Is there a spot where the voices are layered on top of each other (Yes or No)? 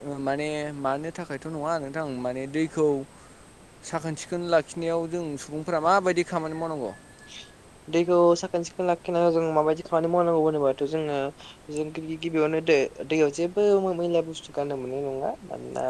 No